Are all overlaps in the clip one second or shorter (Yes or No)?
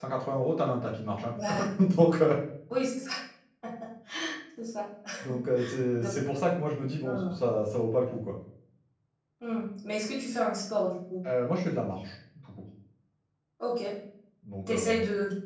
Yes